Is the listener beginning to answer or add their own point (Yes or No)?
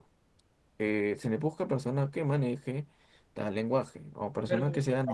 No